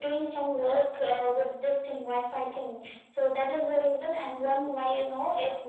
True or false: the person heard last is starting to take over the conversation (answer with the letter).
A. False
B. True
A